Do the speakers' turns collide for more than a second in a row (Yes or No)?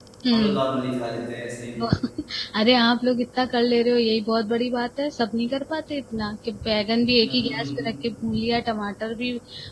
No